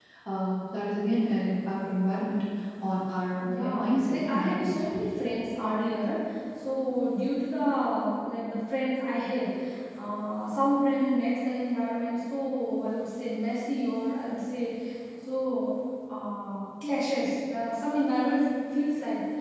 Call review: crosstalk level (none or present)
present